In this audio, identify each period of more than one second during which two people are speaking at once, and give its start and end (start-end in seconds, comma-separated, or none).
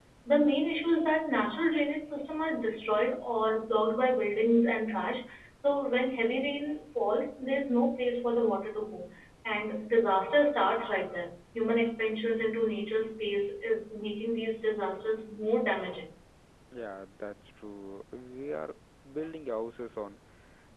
none